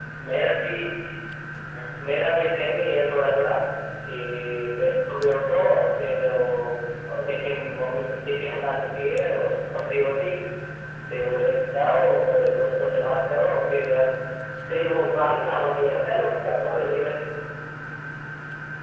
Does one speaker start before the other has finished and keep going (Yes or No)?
Yes